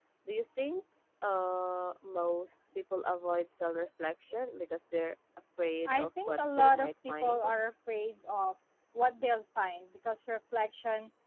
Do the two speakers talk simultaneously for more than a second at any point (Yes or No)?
Yes